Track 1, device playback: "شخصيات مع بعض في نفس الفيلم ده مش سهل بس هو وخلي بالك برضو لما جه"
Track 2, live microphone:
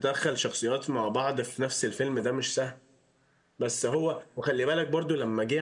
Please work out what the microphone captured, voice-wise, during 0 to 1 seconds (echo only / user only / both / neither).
echo only